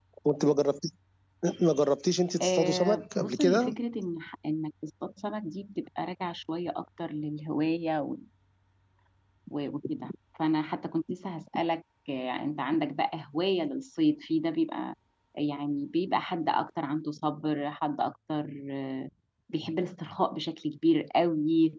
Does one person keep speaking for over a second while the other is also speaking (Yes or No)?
Yes